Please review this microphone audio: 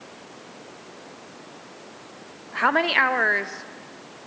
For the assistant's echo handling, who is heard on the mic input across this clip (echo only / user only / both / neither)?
user only